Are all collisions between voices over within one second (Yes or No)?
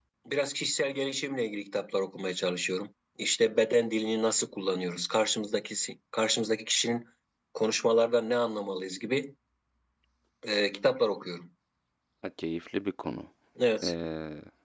Yes